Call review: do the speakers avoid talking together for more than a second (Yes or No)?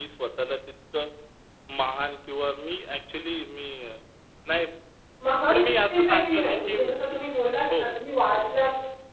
No